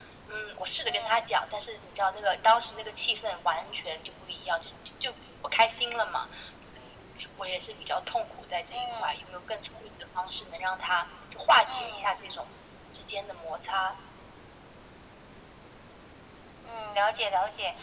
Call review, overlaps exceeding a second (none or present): none